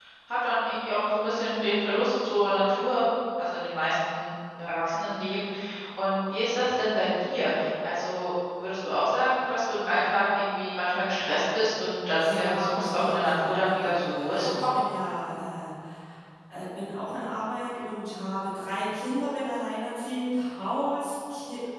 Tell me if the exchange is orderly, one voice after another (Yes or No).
No